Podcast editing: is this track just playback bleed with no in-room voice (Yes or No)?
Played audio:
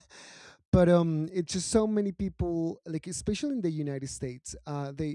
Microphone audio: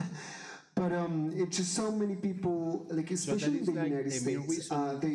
No